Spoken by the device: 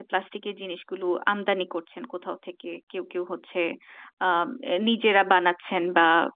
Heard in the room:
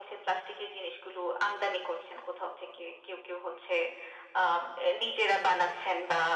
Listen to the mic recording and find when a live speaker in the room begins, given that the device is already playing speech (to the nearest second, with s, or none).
none